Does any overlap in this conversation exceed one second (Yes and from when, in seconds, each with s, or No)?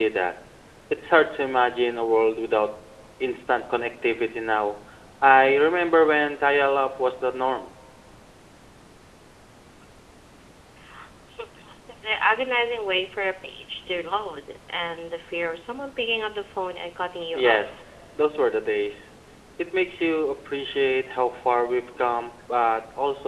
No